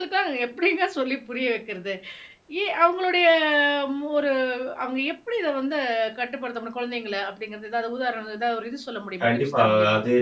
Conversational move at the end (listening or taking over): taking over